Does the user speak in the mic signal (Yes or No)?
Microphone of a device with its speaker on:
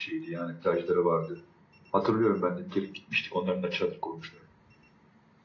Yes